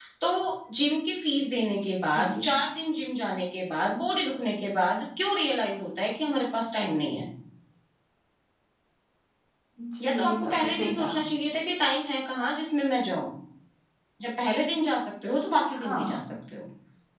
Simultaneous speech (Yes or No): Yes